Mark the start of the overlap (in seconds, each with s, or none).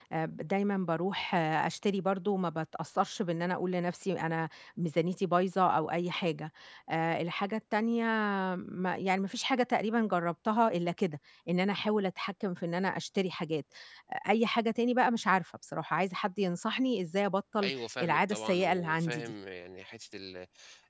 17.6 s